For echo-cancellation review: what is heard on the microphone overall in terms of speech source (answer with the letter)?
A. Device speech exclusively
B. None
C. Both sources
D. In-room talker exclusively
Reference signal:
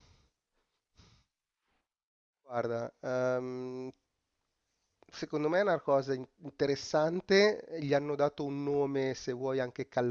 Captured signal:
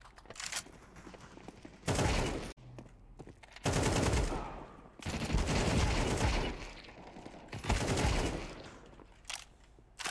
B